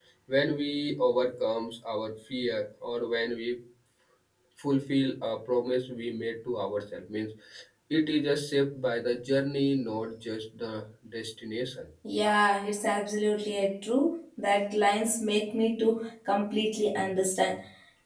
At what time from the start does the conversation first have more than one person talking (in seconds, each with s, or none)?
none